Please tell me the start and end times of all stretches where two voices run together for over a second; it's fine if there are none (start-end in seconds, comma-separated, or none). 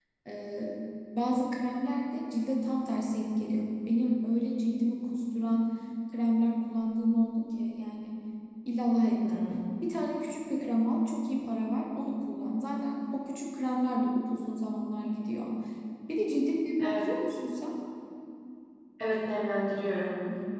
none